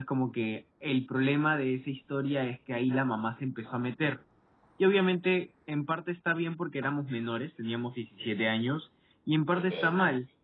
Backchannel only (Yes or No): Yes